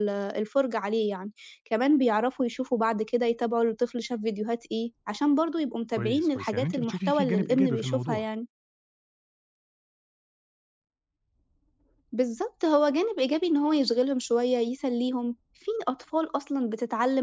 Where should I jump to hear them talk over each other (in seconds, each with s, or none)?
5.9 s